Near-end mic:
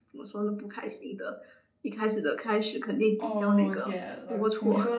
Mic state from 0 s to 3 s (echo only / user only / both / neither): echo only